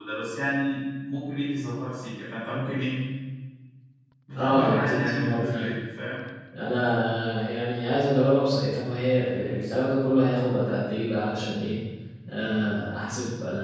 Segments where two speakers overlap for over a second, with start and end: 4.3-5.7

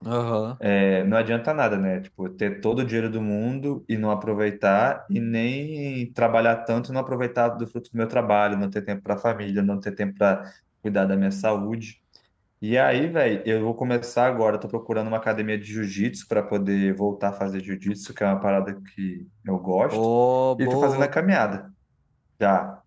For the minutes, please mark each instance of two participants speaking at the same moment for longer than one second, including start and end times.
none

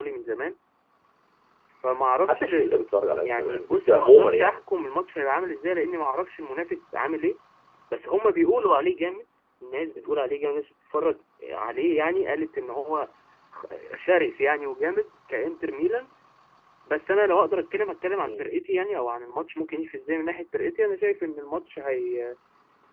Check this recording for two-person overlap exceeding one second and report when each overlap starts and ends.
3.2-4.6

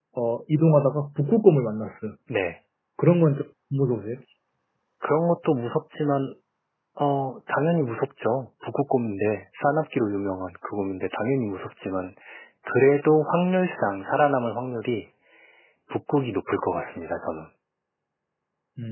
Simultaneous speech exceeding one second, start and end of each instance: none

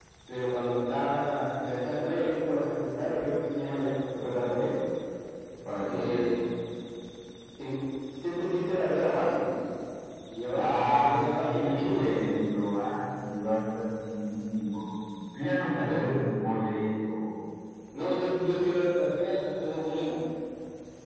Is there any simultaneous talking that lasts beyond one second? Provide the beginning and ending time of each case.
10.5-12.2

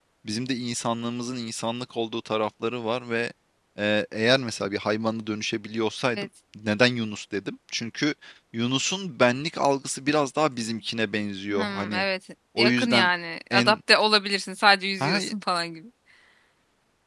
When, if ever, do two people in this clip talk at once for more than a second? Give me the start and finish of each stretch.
none

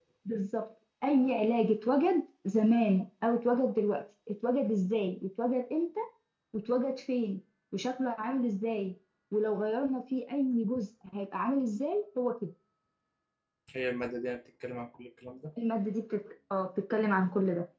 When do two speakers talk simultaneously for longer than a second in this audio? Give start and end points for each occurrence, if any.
none

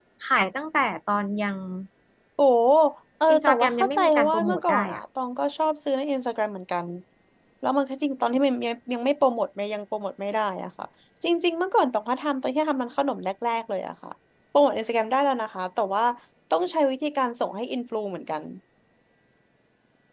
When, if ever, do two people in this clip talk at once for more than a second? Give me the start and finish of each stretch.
3.3-5.0

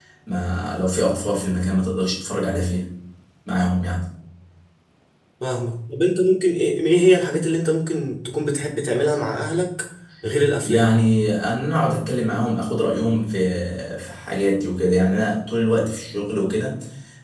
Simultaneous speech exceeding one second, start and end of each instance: none

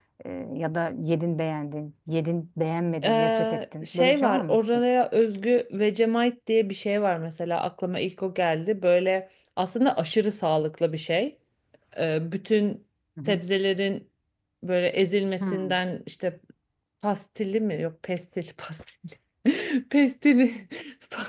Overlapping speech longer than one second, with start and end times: 3.0-4.9

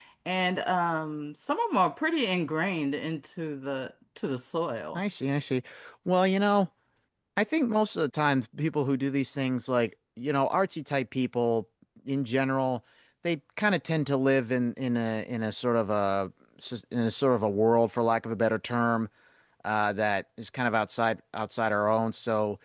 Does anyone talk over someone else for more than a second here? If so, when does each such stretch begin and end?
none

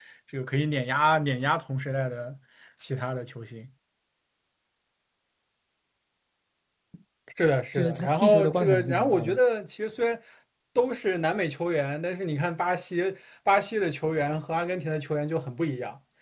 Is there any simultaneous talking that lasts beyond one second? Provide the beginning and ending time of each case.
7.8-9.4

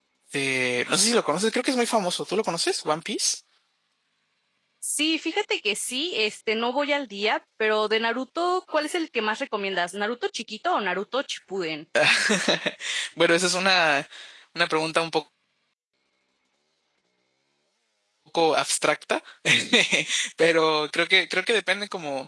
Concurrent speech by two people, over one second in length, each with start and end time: none

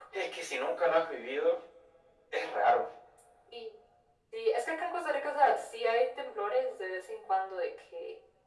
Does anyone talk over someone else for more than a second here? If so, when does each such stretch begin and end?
none

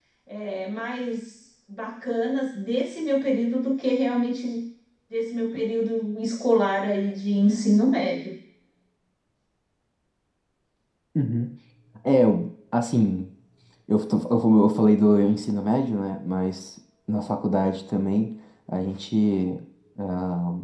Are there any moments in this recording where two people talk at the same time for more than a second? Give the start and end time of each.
none

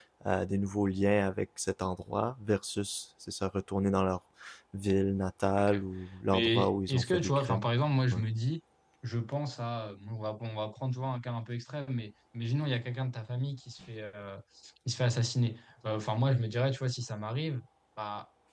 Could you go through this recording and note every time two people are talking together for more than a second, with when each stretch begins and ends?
6.3-7.7

